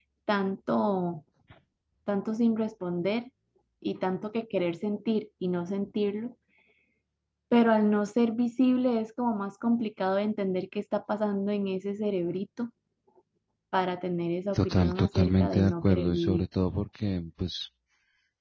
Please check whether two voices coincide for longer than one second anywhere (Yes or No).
Yes